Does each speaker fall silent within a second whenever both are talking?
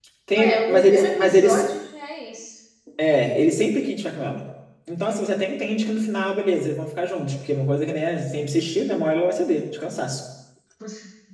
No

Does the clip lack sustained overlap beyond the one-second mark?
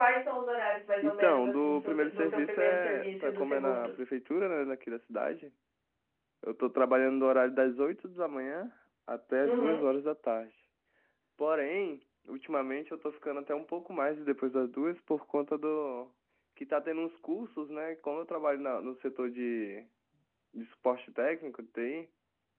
No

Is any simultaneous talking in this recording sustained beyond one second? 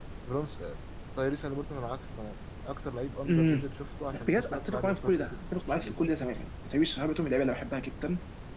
Yes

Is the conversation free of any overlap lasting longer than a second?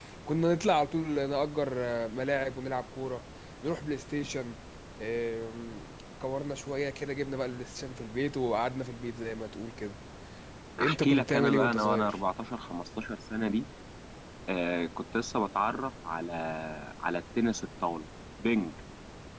No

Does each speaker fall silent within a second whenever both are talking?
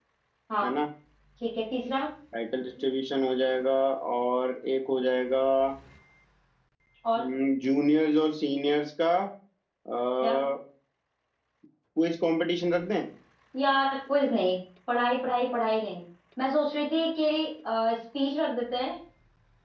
Yes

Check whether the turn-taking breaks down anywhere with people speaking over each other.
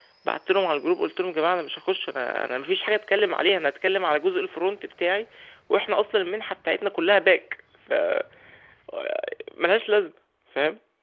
No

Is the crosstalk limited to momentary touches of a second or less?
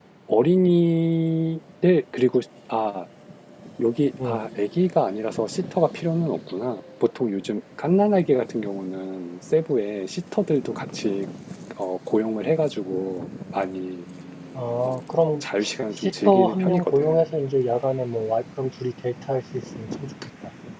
No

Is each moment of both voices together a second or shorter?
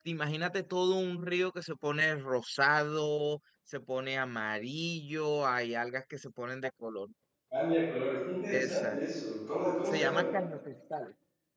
Yes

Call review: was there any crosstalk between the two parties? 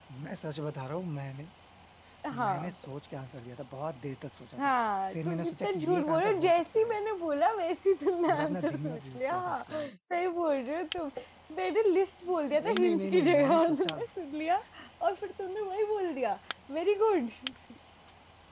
Yes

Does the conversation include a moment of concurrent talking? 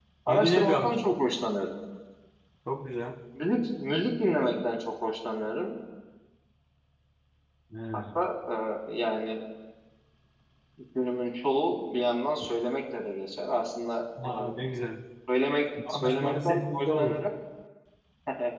Yes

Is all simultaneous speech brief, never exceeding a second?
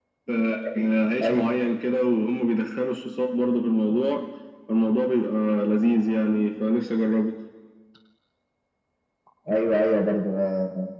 Yes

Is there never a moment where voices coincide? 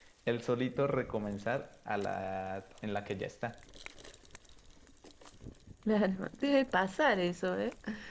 Yes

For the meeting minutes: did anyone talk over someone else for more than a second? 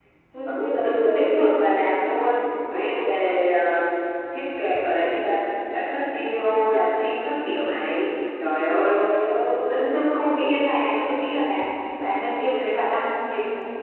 Yes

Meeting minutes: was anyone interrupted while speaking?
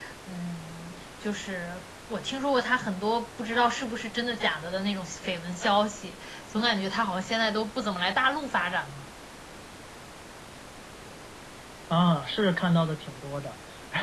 No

